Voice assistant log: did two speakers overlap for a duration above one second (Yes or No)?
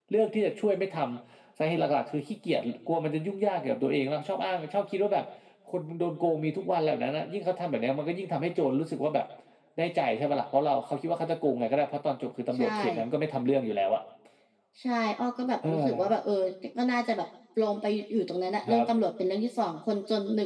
No